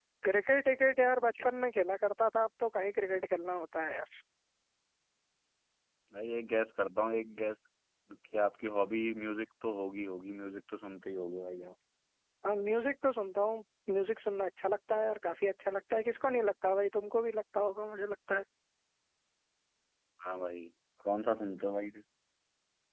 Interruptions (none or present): none